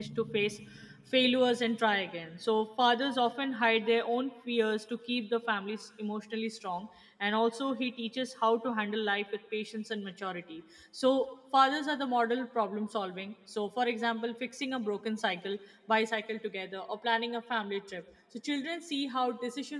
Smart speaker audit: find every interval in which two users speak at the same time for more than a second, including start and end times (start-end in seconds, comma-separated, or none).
none